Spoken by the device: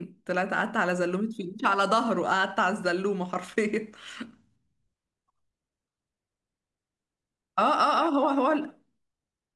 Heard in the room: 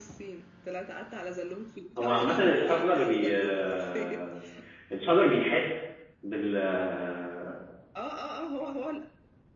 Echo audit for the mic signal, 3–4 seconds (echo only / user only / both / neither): both